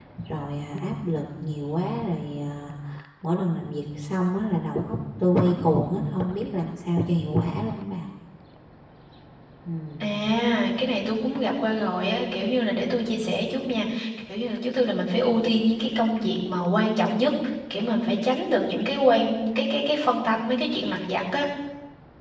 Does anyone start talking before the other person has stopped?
No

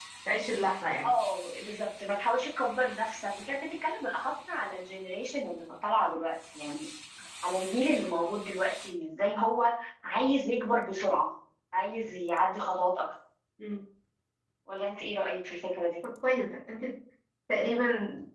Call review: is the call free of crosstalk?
Yes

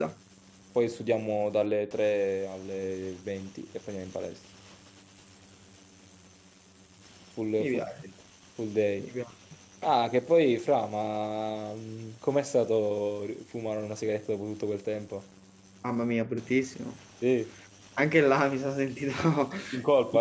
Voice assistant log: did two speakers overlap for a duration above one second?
No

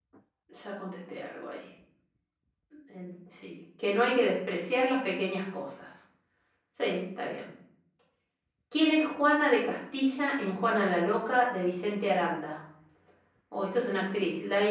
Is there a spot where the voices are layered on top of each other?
No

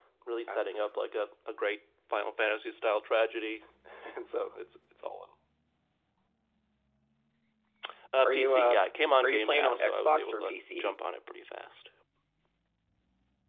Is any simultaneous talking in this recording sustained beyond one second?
Yes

